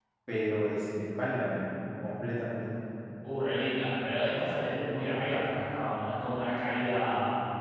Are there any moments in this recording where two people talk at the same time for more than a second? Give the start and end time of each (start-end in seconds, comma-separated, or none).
none